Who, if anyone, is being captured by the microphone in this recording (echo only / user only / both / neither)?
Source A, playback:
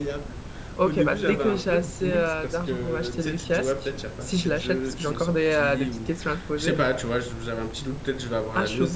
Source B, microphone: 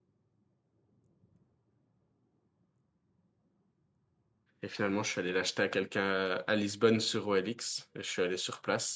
user only